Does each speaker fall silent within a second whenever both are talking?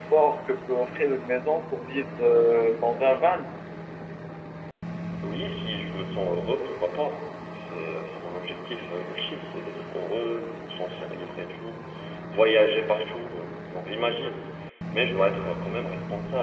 Yes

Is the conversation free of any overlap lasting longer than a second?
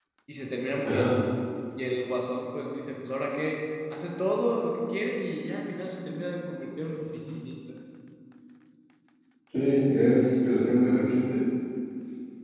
Yes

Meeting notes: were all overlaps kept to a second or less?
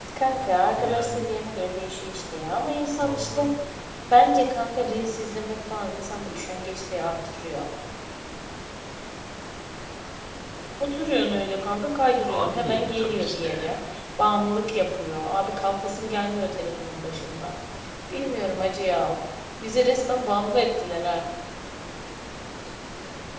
No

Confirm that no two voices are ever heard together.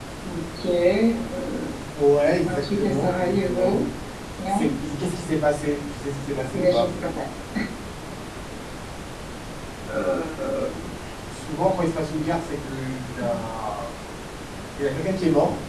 No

